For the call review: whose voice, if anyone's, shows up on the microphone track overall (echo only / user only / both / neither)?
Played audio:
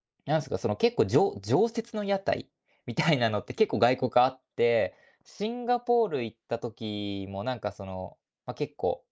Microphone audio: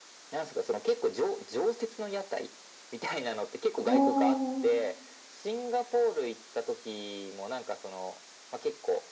both